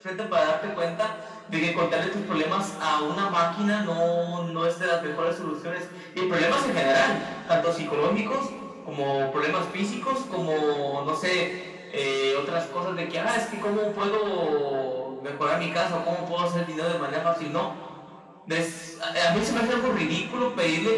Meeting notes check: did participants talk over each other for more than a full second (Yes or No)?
No